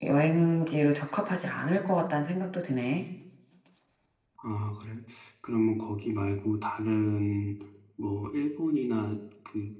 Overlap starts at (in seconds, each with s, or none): none